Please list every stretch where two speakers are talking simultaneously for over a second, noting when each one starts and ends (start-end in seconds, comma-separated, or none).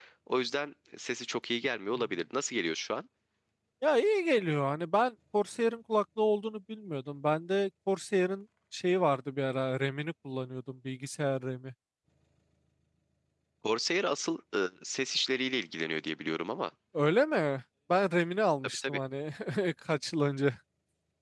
none